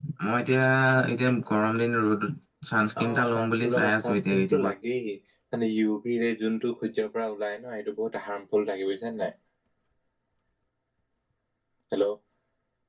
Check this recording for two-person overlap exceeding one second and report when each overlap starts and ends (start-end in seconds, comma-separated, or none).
3.0-4.7